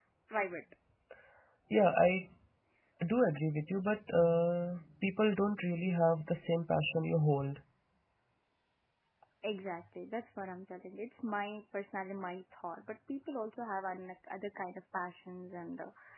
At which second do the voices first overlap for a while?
none

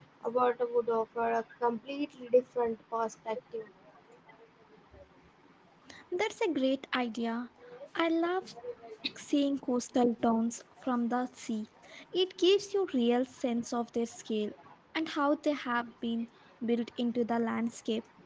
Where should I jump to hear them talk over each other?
none

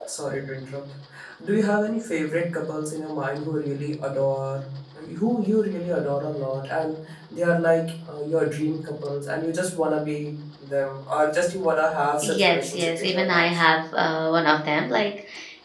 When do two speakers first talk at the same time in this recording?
12.2 s

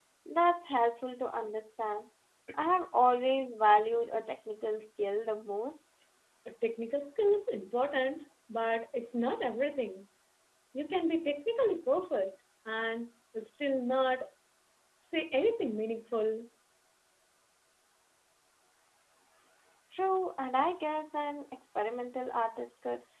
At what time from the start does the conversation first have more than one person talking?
none

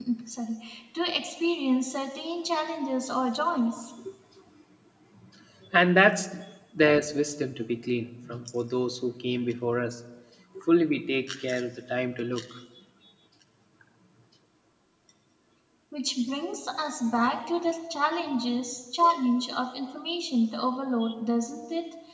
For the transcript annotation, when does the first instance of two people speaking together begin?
none

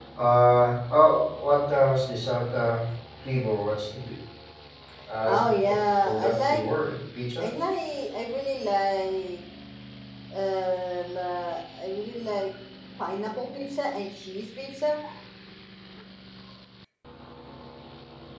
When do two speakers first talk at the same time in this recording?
5.3 s

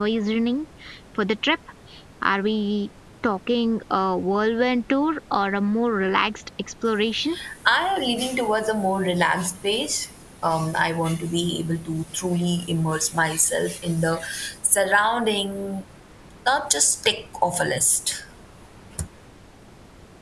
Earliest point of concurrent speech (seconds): none

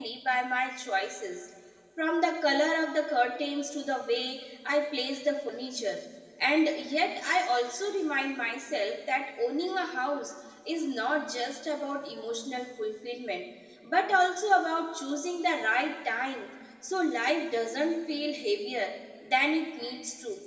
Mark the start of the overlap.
none

